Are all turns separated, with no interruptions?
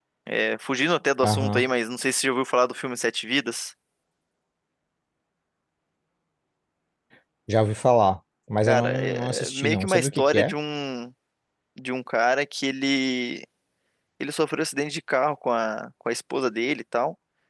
No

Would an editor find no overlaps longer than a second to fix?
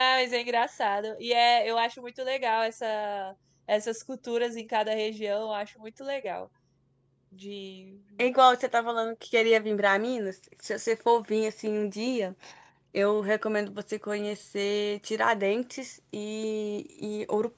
Yes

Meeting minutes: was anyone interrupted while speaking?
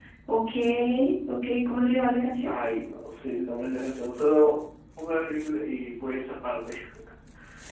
No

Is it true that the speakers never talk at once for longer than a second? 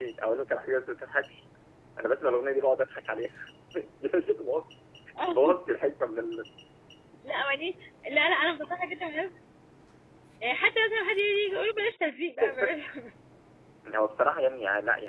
Yes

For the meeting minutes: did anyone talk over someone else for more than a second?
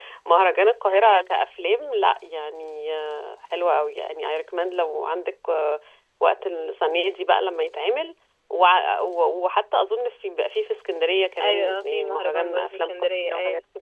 Yes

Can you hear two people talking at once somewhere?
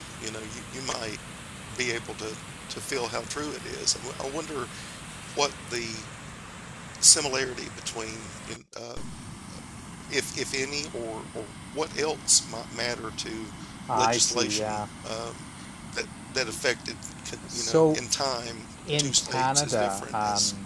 Yes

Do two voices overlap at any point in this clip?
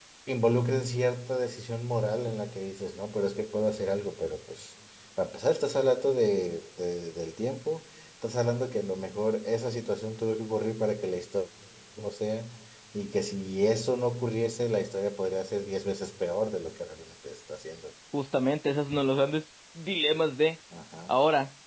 No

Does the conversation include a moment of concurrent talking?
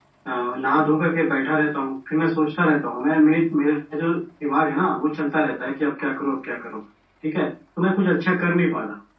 No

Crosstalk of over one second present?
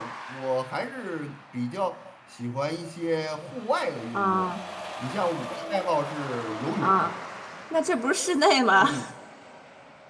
No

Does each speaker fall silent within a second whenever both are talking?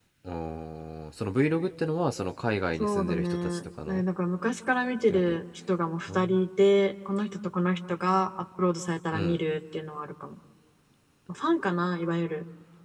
No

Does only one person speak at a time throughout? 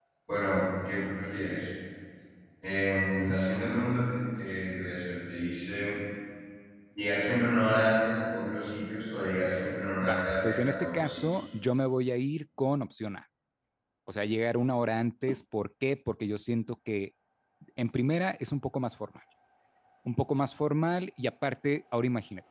No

